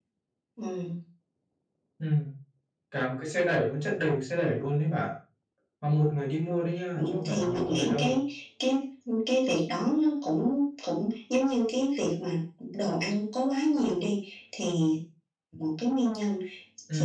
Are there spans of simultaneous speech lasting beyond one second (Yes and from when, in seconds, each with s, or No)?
Yes, from 7.0 s